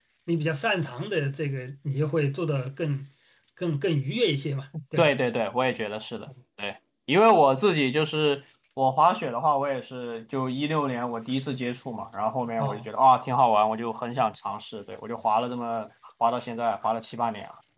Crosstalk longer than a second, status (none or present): none